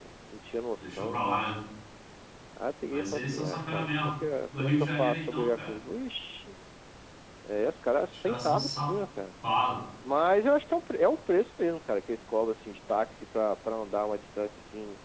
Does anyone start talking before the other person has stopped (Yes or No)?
Yes